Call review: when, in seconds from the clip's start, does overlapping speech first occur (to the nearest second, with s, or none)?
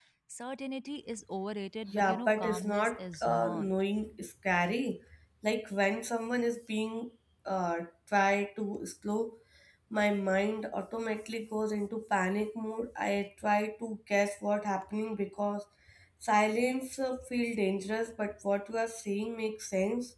2 s